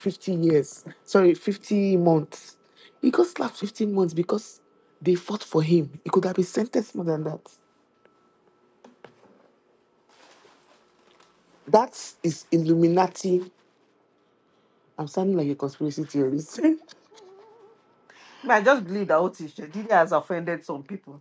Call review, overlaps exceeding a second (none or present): none